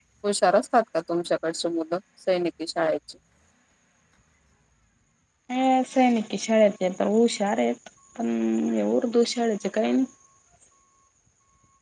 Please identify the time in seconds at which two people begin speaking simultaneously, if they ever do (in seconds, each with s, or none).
none